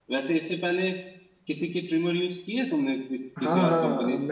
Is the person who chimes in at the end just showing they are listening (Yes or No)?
No